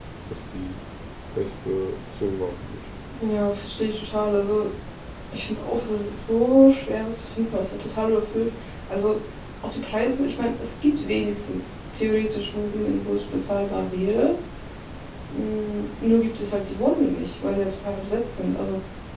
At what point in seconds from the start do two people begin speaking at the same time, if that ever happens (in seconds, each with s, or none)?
none